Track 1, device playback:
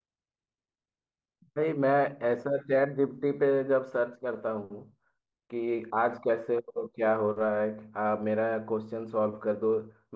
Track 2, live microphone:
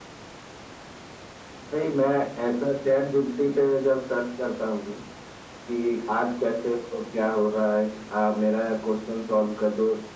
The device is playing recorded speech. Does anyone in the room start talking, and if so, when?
none

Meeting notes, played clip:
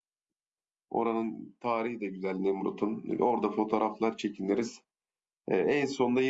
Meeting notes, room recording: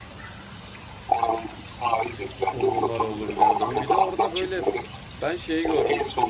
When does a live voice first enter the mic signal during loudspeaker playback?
3 s

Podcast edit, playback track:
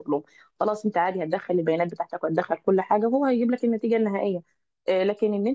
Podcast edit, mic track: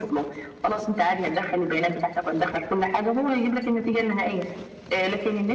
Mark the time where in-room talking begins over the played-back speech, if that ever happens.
none

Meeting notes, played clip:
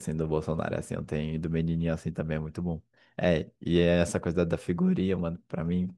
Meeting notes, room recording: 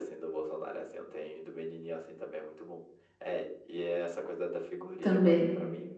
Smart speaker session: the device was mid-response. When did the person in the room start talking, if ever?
5 s

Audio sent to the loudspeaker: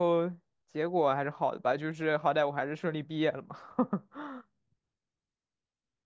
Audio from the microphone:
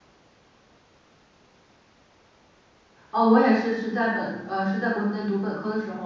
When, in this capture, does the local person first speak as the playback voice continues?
3 s

